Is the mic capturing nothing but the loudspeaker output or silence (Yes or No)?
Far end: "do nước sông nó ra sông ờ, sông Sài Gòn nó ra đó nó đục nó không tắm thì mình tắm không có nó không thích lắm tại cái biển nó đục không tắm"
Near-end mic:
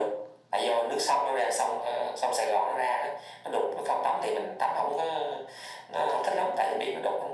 Yes